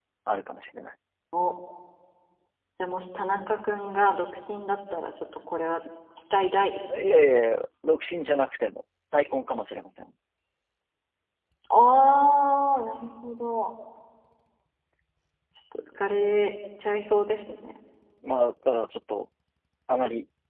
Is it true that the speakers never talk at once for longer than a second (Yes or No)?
Yes